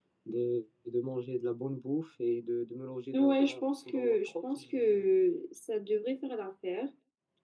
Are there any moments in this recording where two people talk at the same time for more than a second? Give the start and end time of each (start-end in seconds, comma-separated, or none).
3.1-5.0